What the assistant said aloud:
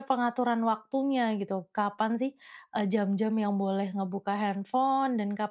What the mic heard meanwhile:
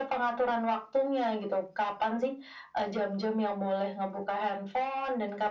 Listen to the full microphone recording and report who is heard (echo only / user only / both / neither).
echo only